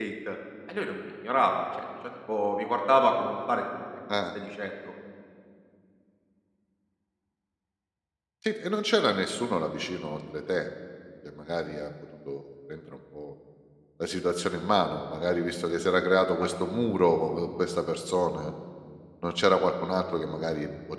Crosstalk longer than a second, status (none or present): none